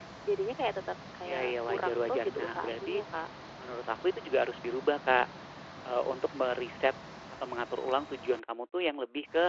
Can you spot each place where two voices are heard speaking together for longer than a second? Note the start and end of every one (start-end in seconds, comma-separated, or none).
1.2-3.0